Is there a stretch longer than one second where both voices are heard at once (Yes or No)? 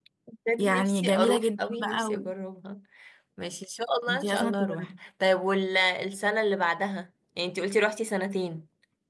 Yes